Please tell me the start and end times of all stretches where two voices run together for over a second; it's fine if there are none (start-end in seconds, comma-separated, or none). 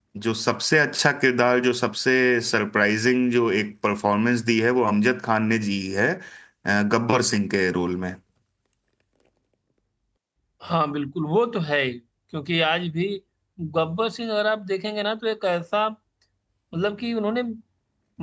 none